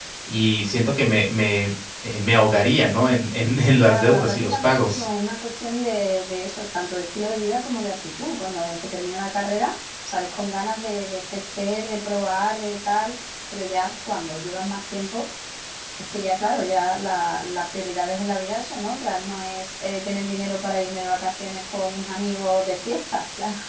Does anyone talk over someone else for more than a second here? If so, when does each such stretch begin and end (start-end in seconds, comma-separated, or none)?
3.8-5.0